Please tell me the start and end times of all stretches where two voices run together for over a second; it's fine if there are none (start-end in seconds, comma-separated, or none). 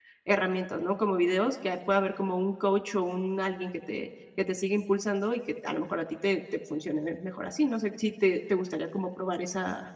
none